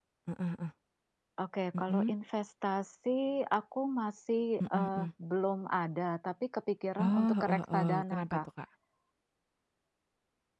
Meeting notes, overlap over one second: present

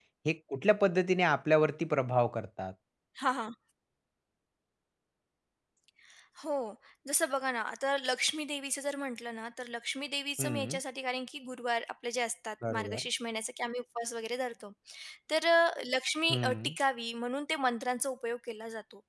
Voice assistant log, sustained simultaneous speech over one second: none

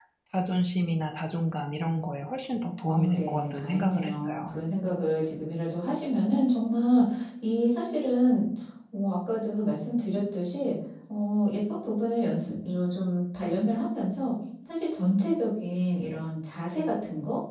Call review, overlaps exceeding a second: present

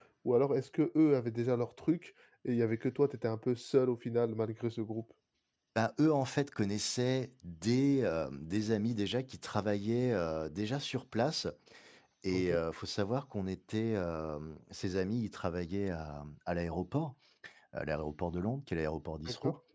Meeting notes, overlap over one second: none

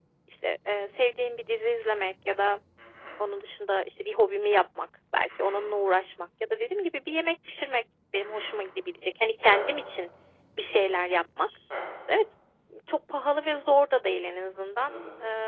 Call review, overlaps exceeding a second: none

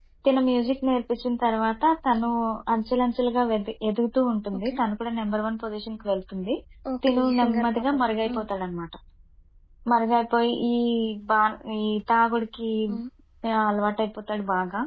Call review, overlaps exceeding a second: present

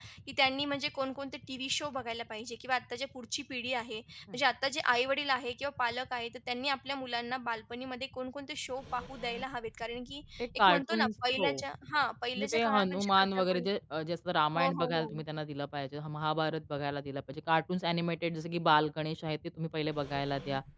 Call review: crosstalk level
present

